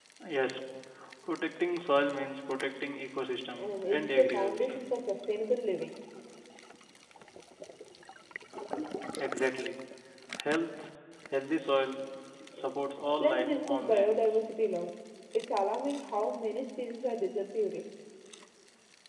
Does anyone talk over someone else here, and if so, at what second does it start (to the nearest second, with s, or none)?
4 s